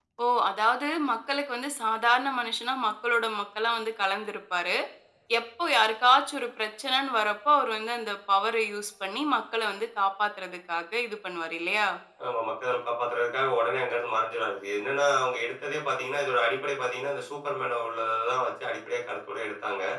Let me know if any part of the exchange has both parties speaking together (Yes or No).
No